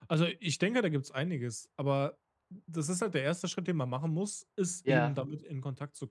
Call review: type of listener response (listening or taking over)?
listening